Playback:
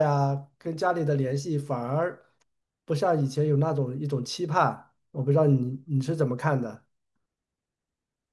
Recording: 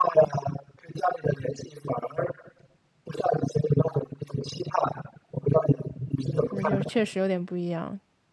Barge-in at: 6.5 s

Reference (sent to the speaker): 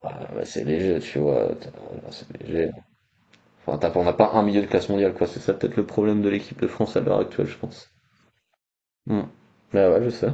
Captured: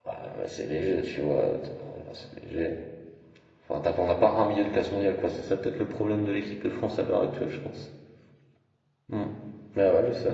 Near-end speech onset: none

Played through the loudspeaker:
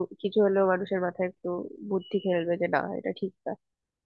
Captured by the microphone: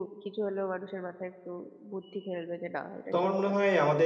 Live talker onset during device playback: 3.1 s

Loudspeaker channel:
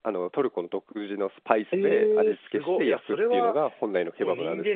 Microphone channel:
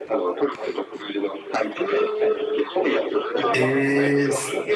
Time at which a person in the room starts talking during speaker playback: 3.5 s

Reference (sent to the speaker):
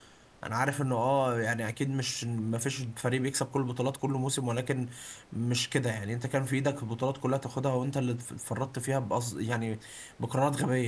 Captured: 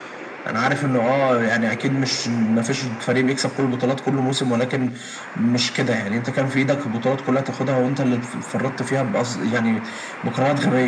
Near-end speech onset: none

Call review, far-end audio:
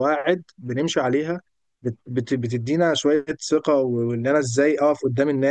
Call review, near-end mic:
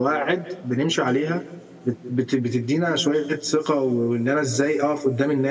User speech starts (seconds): none

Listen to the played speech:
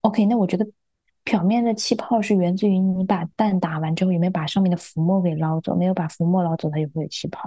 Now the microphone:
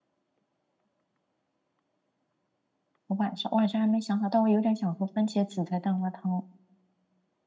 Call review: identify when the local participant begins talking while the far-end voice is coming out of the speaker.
3.1 s

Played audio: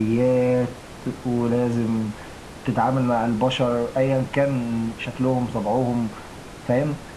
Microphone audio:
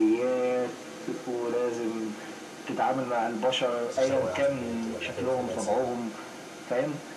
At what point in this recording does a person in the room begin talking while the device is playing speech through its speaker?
3.9 s

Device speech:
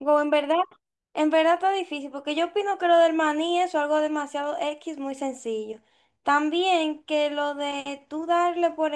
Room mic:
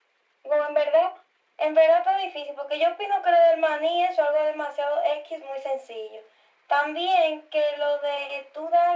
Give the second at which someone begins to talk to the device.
none

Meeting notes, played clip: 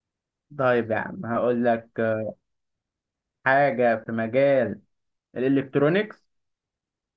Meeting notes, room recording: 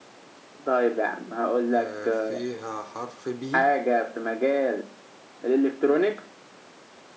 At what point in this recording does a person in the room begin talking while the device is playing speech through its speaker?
1.8 s

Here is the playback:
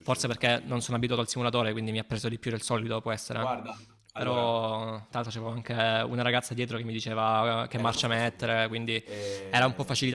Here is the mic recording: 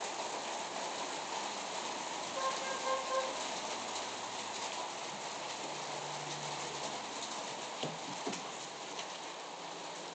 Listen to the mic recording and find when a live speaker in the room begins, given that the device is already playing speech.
none

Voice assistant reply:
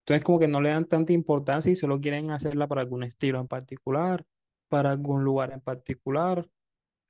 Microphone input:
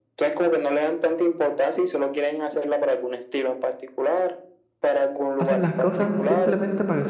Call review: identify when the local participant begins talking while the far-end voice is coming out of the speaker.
5.4 s

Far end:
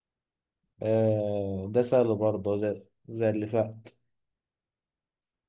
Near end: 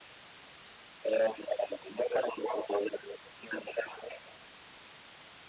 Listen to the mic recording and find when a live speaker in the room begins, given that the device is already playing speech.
none

